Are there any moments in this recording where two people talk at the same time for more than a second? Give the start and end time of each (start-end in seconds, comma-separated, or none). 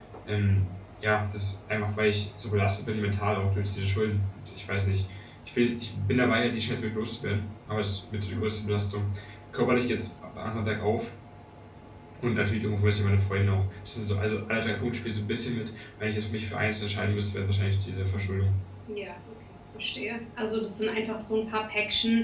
none